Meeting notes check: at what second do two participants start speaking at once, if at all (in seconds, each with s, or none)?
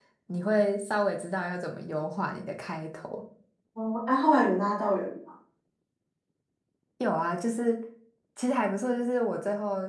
none